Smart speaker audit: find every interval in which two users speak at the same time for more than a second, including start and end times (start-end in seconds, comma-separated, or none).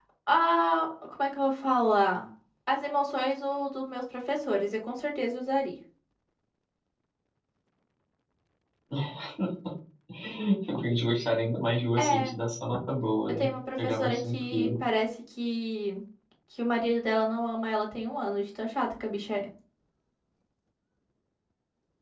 13.3-14.7